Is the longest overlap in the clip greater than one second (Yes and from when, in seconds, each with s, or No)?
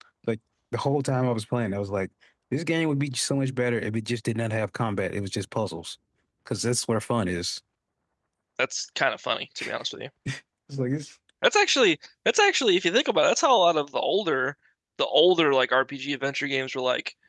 No